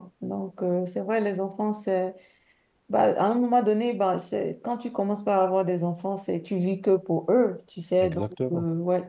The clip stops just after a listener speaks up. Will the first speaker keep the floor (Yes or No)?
Yes